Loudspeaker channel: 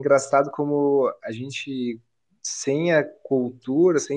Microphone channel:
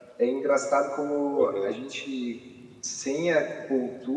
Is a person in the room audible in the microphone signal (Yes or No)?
Yes